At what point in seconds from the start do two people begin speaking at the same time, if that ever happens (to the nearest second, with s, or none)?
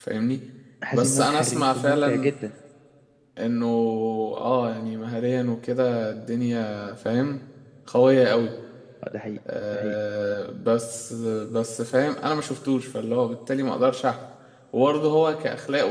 1 s